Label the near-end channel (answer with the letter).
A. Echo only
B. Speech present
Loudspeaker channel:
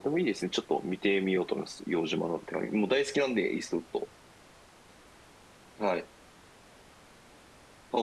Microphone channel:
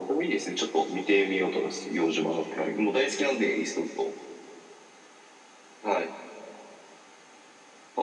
A